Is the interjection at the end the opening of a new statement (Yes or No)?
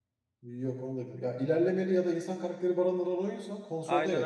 Yes